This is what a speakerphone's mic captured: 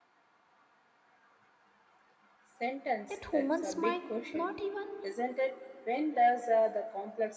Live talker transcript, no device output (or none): that humans might not even